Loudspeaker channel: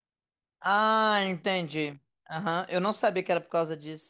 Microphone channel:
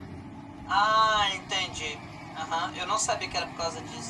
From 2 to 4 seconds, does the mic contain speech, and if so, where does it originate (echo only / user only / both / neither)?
echo only